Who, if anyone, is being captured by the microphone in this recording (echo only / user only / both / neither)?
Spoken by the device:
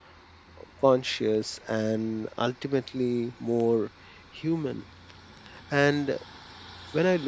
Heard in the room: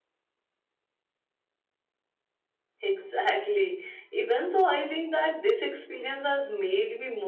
user only